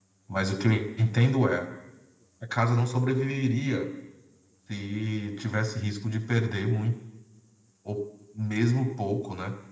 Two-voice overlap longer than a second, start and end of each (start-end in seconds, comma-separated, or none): none